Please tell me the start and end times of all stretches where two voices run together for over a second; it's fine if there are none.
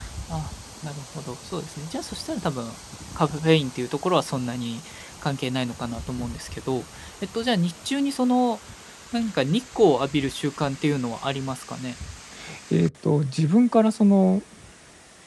none

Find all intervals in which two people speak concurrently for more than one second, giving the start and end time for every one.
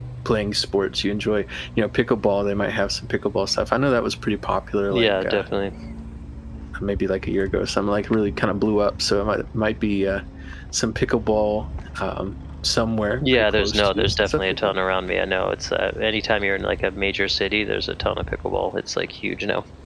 13.2-14.7

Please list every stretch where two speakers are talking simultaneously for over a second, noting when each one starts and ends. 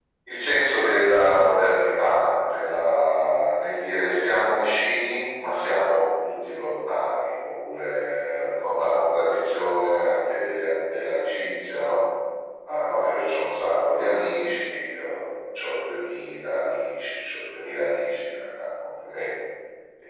none

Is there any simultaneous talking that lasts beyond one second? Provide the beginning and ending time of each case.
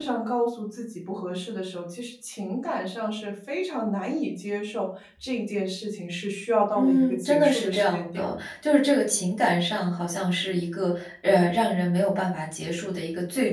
6.7-8.3

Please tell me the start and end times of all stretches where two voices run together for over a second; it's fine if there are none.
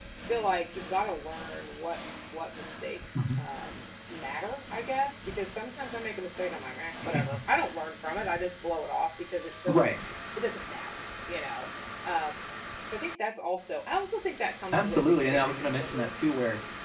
14.7-16.1

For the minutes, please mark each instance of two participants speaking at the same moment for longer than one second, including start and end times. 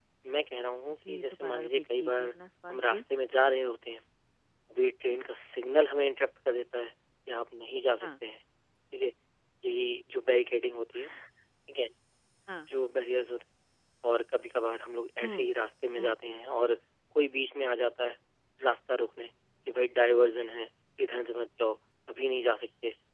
1.1-2.3

